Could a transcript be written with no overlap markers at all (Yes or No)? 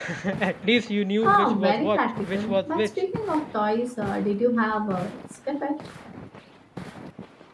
No